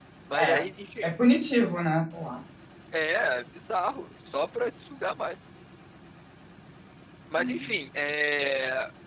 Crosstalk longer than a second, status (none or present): none